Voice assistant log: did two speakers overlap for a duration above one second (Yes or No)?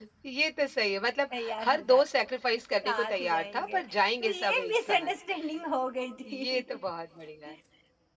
Yes